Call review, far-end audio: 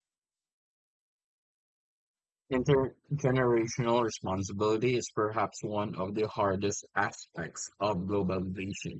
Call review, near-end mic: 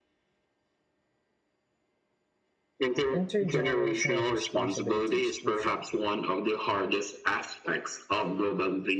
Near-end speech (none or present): present